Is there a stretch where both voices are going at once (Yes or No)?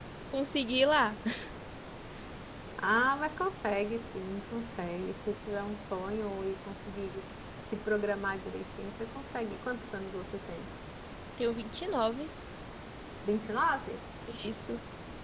No